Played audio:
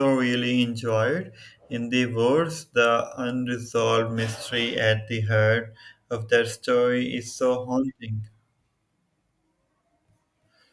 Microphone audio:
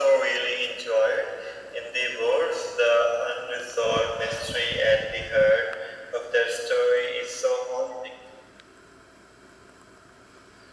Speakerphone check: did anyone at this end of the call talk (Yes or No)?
No